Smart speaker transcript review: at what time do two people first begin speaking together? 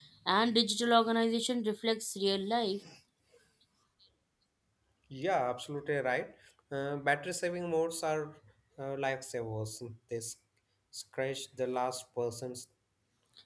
none

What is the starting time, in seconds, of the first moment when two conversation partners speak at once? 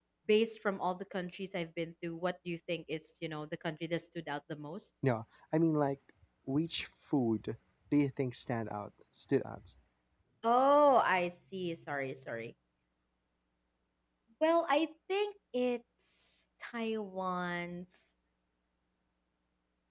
none

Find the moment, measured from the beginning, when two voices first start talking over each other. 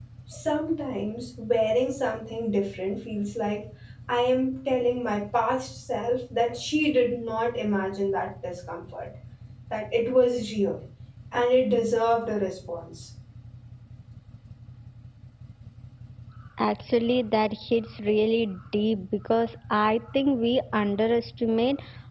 none

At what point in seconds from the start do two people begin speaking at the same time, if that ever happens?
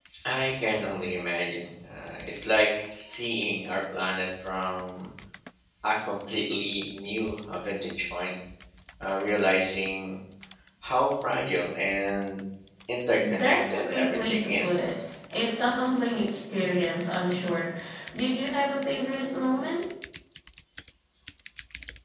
13.4 s

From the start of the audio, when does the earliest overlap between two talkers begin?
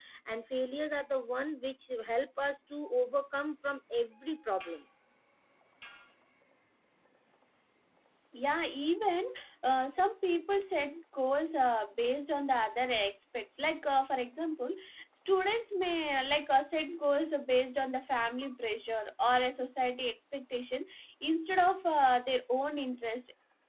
none

